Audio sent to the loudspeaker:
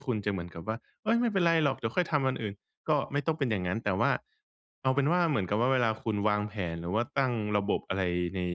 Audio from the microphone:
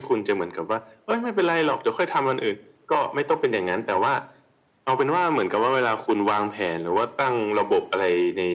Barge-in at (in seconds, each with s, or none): none